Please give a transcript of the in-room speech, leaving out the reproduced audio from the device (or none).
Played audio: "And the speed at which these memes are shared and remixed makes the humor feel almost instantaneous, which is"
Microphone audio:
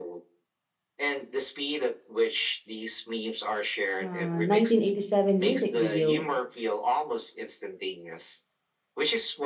uh, 1987 music video,